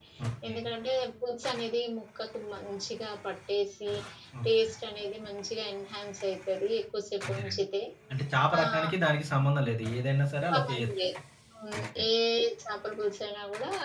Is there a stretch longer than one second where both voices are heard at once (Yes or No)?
No